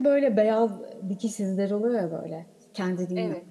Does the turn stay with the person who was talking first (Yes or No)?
Yes